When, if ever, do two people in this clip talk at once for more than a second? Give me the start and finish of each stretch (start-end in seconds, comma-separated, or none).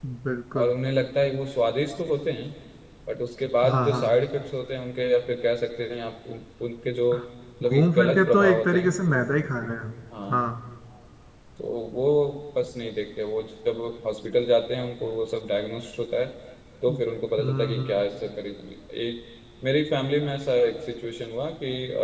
7.6-9.0